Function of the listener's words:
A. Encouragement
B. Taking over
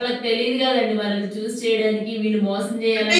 A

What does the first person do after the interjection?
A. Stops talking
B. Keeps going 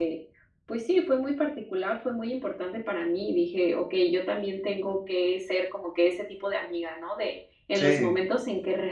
B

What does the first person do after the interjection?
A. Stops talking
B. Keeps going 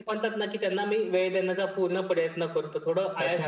A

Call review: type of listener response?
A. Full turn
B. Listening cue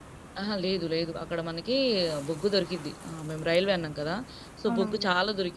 B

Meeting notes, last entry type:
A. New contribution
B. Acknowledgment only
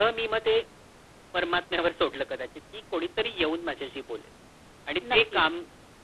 B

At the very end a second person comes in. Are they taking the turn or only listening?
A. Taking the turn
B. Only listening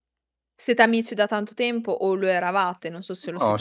A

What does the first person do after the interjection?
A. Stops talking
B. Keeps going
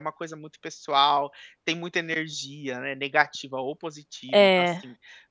B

